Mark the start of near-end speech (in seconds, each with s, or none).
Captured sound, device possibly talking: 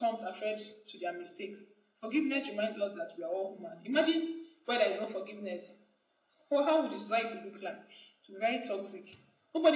none